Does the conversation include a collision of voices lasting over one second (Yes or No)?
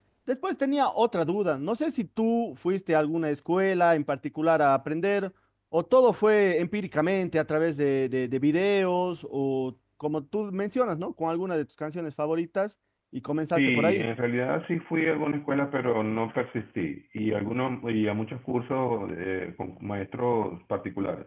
No